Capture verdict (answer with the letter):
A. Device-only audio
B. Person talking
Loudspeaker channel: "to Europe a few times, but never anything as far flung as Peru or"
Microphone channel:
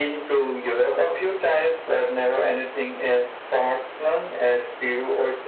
A